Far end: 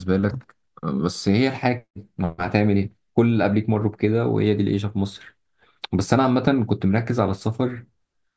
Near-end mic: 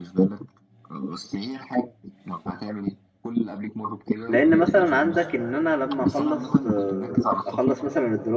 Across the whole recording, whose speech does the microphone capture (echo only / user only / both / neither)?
both